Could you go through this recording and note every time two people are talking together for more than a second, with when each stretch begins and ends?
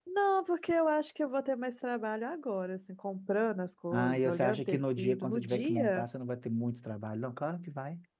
3.9-6.0

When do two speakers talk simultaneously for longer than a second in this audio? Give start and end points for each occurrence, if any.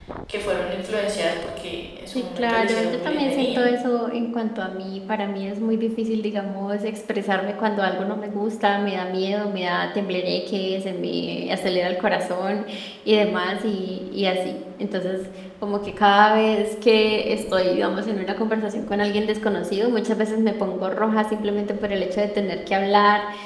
2.1-3.6

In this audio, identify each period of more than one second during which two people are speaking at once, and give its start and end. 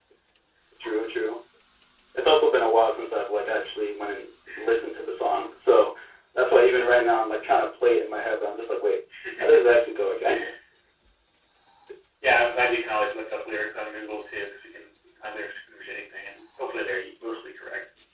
none

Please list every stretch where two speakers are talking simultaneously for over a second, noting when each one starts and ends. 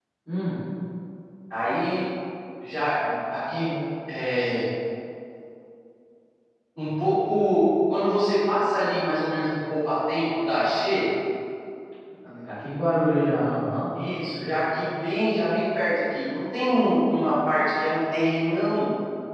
none

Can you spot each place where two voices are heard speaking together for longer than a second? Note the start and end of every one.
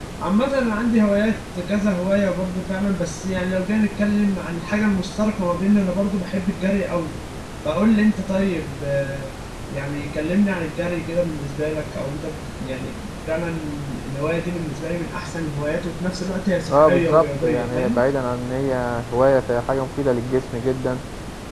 16.7-18.0

